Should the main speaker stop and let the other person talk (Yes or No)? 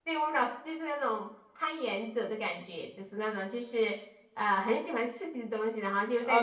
Yes